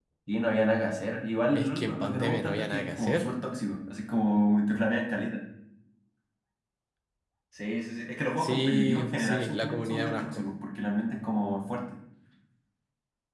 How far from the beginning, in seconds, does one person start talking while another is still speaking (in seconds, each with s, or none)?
1.5 s